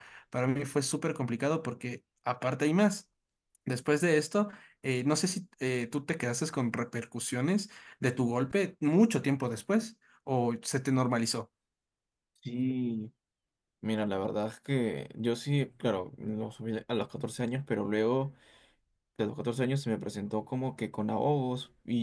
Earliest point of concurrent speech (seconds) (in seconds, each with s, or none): none